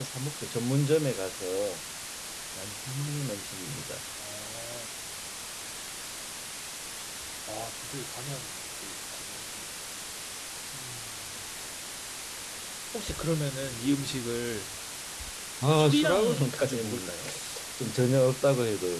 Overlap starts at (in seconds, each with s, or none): 15.7 s